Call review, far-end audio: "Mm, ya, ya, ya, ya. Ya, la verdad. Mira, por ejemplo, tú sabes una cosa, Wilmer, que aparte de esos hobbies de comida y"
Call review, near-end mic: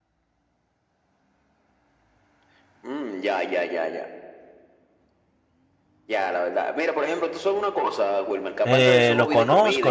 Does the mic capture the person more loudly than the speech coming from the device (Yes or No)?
Yes